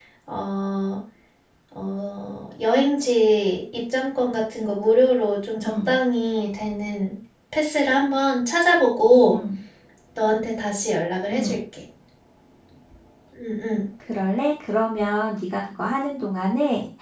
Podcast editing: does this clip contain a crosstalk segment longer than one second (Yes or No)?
No